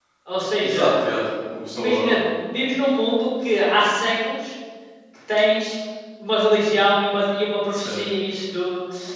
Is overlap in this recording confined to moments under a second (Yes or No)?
Yes